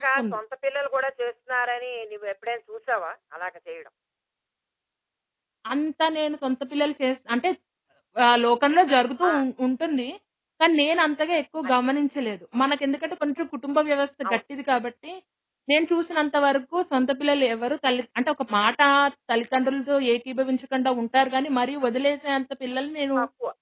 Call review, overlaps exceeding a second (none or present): none